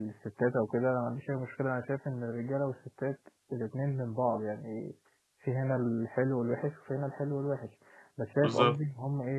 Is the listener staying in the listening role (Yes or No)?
Yes